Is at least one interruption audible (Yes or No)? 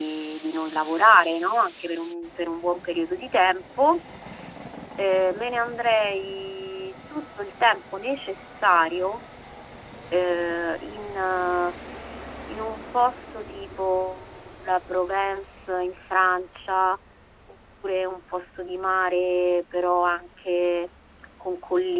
No